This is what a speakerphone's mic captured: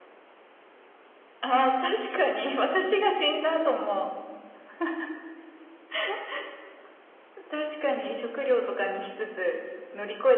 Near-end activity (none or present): none